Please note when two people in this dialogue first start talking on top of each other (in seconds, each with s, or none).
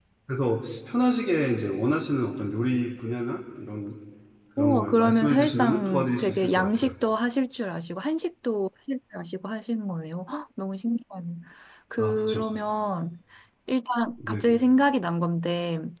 4.6 s